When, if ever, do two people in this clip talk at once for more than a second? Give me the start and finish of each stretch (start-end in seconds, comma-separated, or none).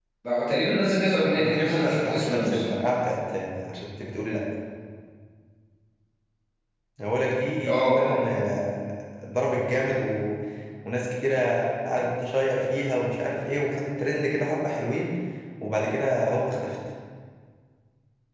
1.4-2.8